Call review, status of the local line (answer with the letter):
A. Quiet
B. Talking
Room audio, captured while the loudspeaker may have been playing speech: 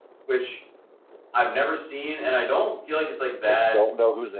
B